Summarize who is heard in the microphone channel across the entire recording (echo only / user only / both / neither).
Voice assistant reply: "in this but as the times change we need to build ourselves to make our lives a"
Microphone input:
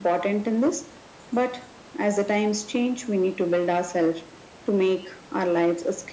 echo only